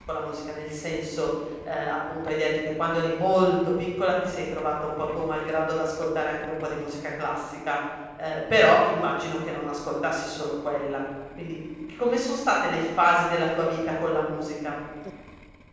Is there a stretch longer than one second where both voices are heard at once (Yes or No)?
No